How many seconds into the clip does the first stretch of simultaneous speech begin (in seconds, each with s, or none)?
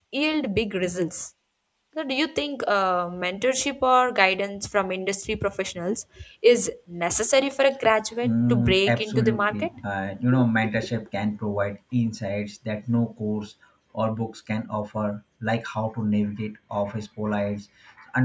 8.2 s